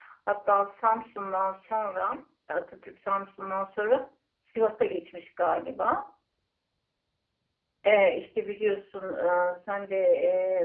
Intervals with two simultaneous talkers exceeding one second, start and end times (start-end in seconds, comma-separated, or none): none